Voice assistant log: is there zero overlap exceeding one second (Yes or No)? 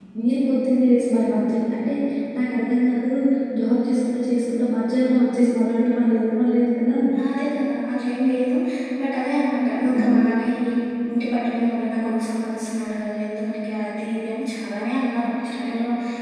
Yes